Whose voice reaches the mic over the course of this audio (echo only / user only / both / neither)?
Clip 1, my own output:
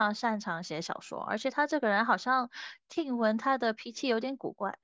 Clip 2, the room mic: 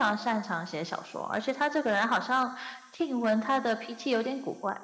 echo only